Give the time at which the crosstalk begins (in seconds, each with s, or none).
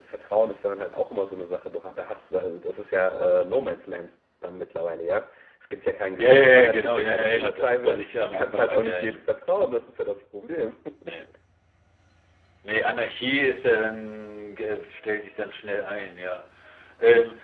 6.2 s